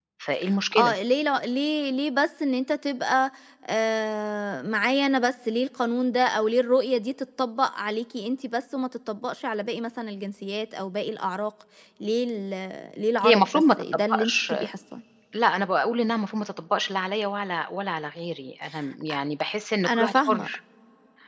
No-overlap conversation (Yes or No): No